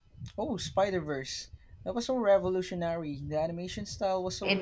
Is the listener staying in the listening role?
No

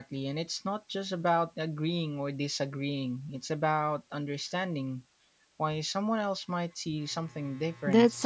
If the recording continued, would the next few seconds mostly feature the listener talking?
Yes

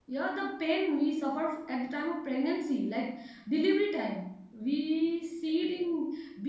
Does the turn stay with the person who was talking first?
Yes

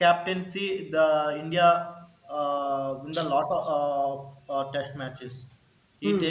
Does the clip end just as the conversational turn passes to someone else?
Yes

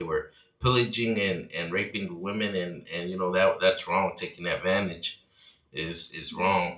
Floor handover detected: No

